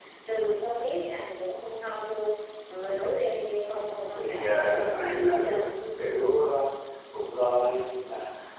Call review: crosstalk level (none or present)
present